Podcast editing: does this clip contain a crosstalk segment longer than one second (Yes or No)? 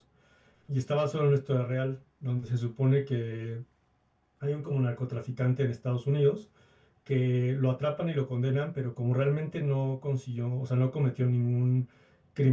No